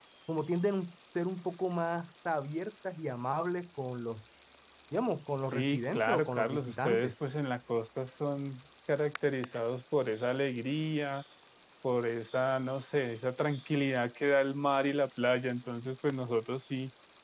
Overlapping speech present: Yes, from 5.5 s

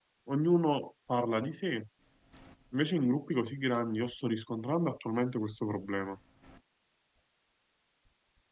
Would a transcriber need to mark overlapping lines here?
No

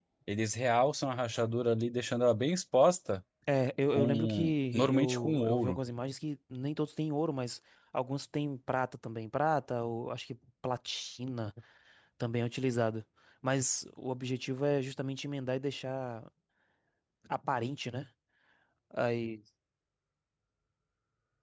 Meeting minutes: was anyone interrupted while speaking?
Yes, from 3.9 s

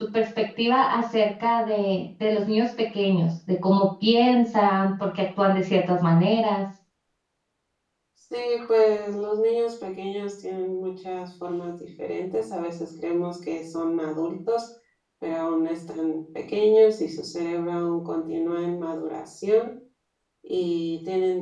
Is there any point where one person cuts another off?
No

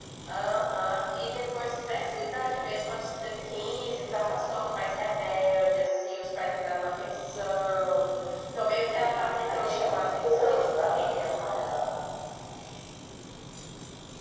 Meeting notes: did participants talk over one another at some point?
Yes, from 8.9 s

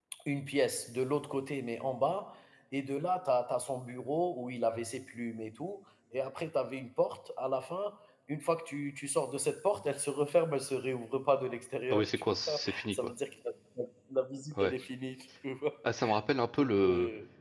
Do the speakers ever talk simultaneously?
Yes, from 11.9 s

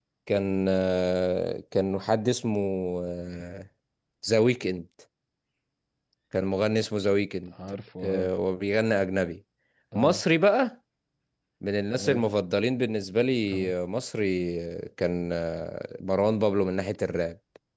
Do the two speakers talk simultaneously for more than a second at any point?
No

